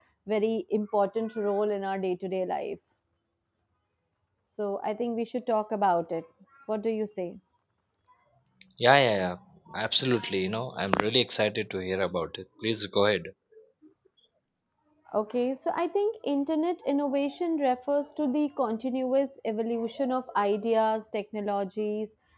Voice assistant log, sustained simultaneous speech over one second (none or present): none